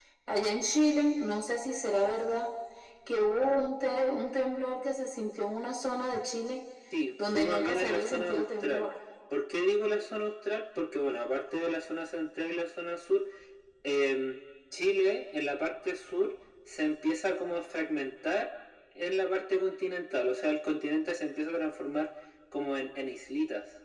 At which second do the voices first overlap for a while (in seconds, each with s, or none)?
7.2 s